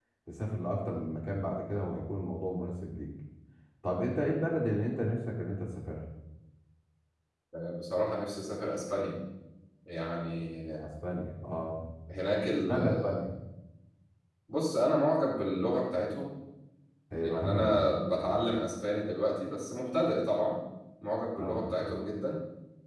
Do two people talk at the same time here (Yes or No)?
Yes